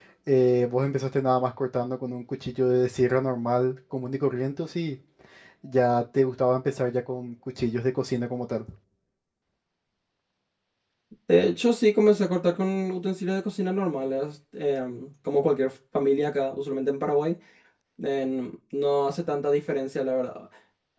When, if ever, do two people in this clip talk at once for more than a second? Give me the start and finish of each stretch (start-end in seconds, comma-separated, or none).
none